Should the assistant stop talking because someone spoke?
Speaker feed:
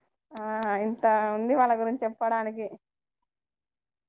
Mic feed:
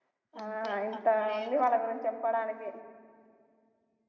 Yes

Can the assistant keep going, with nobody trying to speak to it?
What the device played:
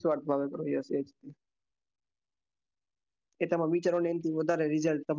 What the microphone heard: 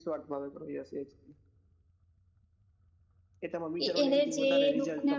No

